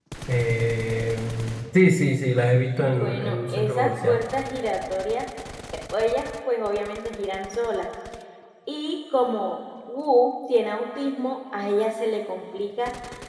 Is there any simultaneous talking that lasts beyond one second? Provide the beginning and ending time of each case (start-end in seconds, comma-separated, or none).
2.8-4.2